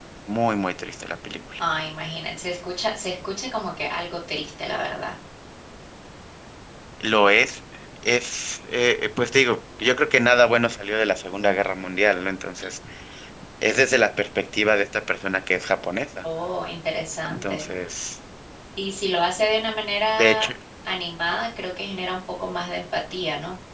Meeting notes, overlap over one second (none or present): none